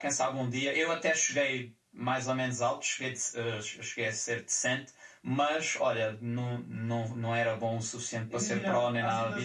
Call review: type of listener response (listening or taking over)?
taking over